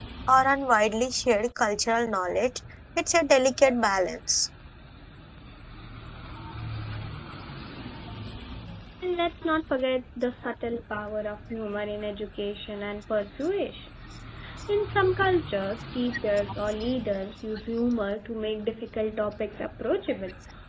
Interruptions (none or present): none